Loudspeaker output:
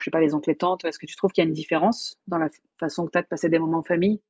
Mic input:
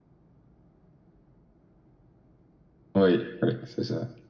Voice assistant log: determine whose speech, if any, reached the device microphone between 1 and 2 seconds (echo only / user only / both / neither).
neither